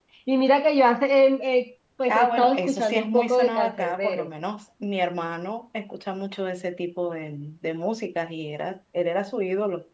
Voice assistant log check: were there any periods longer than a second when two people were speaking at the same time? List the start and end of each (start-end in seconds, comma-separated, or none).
2.1-4.3